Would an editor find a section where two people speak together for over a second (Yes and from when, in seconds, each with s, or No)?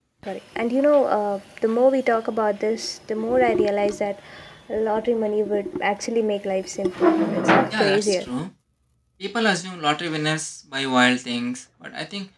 No